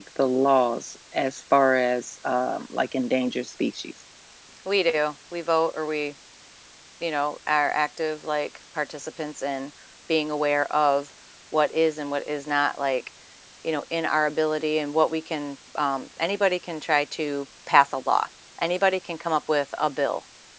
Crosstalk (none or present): none